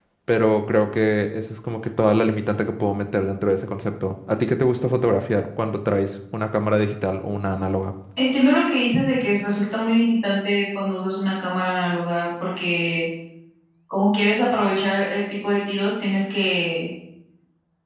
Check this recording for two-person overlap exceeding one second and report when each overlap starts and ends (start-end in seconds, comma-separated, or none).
none